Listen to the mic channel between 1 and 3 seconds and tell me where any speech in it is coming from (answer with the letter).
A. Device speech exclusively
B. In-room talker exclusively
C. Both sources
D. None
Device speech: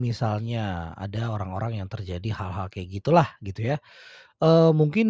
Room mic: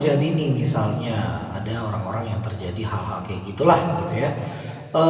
A